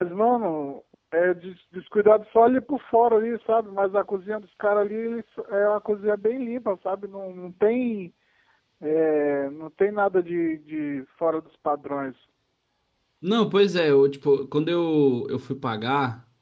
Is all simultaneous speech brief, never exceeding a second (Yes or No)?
Yes